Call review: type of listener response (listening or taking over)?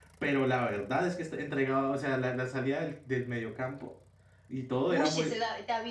taking over